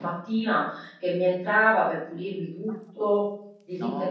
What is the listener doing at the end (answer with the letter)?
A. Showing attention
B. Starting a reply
A